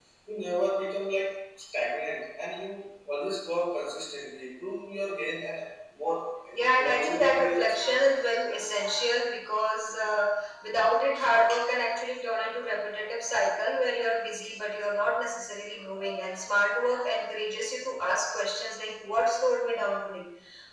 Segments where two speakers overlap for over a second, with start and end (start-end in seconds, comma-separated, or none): 6.7-8.1